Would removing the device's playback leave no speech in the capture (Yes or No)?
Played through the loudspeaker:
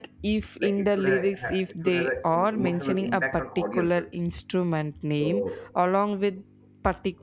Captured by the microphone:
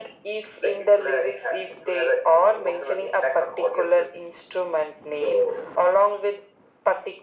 Yes